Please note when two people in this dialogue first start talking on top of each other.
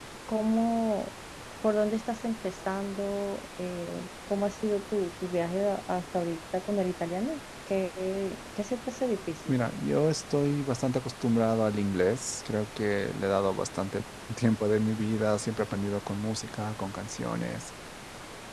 none

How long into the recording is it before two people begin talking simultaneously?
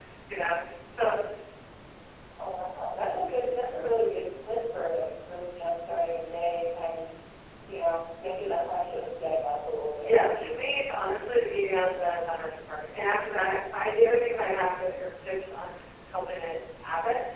10.0 s

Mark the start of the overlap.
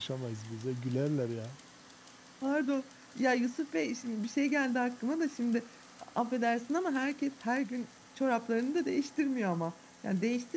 none

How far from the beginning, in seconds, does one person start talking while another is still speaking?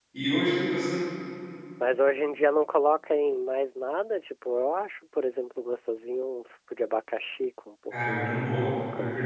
7.9 s

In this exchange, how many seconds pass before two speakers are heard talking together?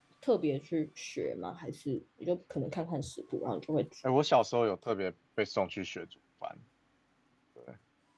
none

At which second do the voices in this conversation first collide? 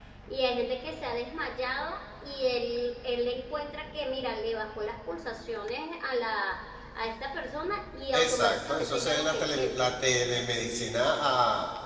8.1 s

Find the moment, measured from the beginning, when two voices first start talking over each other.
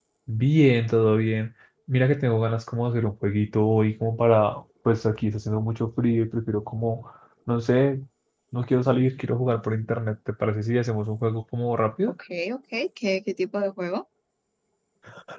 none

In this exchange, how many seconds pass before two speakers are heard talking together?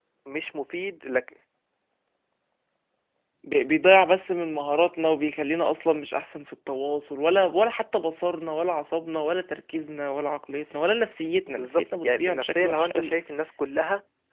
11.5 s

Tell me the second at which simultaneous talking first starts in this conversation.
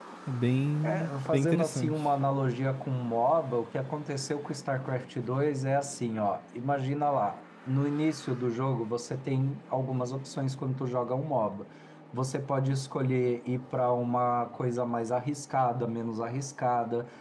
0.8 s

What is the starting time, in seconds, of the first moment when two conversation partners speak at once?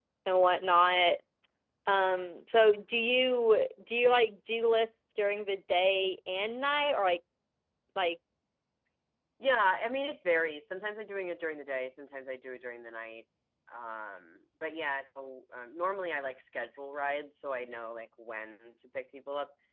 none

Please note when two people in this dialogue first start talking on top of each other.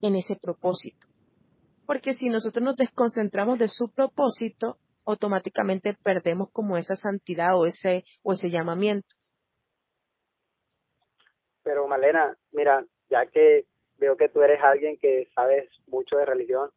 none

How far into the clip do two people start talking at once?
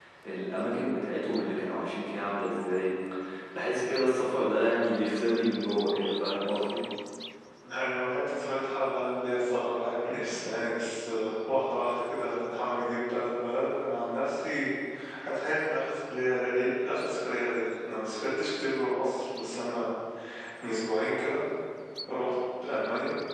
none

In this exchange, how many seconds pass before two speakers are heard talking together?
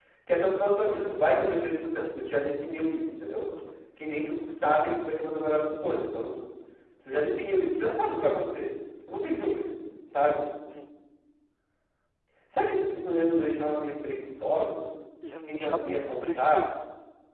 15.5 s

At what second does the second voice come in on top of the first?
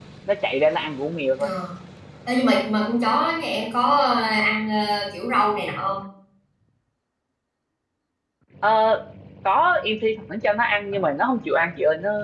none

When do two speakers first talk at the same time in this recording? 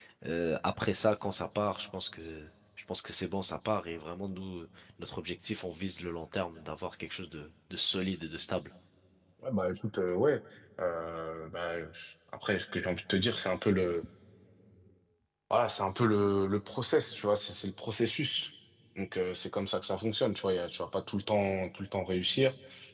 none

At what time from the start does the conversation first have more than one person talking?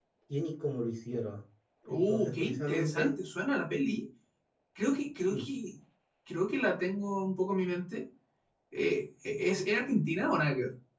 1.9 s

